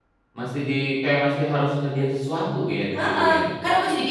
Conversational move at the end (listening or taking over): taking over